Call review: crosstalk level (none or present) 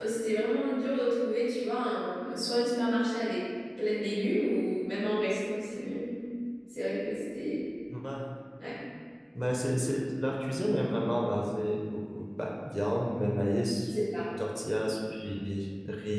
none